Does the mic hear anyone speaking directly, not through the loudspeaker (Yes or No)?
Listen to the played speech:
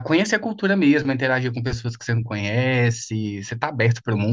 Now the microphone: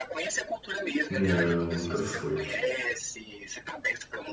Yes